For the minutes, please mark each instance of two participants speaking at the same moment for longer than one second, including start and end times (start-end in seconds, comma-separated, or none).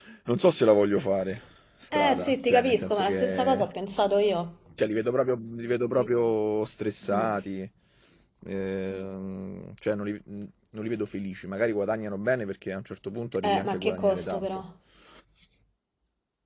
1.9-3.6, 13.4-14.6